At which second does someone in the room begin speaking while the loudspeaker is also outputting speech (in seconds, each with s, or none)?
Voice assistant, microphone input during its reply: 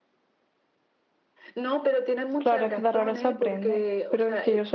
2.4 s